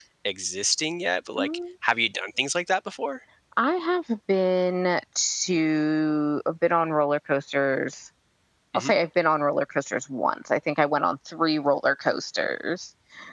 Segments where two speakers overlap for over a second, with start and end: none

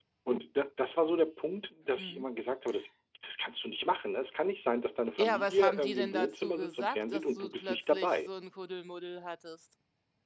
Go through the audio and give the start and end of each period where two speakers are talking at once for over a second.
5.2-8.3

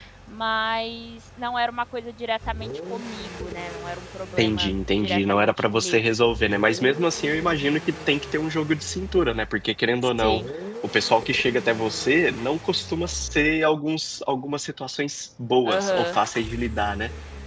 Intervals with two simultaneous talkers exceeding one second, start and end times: 4.4-6.0

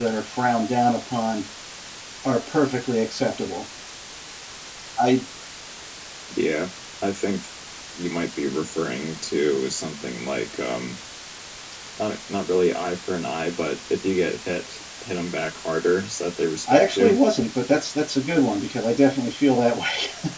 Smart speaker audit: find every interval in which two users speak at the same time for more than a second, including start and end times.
none

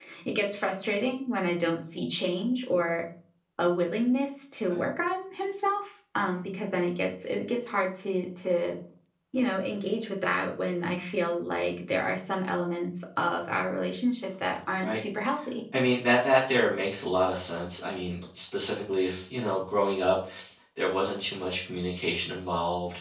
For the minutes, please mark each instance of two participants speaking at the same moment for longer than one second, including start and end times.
none

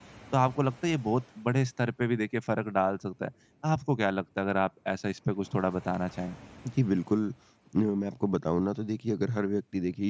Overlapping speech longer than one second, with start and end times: none

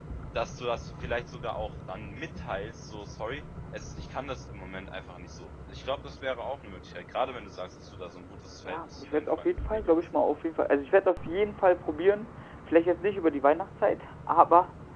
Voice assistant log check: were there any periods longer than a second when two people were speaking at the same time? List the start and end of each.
8.7-10.0

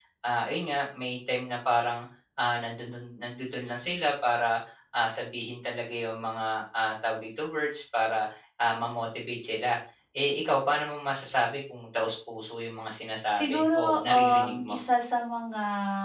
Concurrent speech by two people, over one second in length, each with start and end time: 13.3-14.8

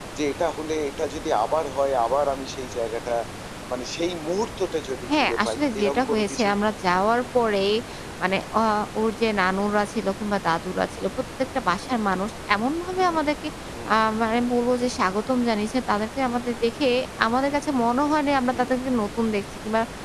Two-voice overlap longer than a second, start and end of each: 5.2-6.5

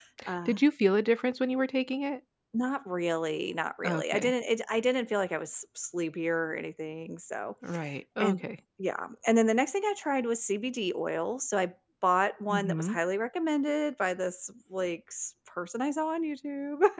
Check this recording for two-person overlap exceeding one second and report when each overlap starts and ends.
none

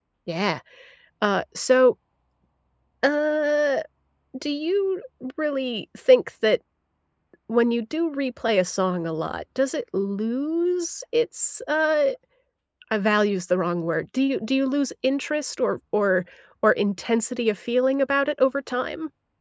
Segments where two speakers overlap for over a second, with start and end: none

